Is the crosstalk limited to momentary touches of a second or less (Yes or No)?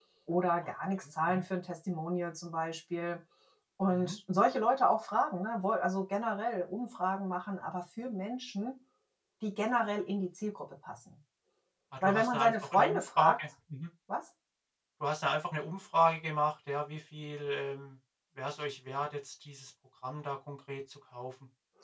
No